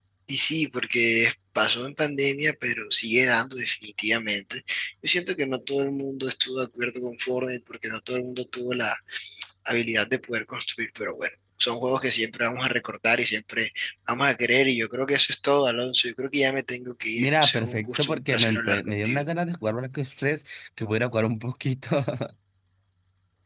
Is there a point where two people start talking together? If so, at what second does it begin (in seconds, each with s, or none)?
17.2 s